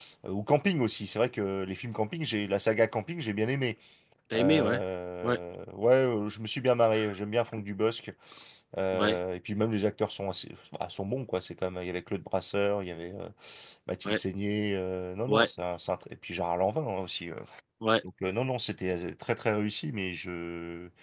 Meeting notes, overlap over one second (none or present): none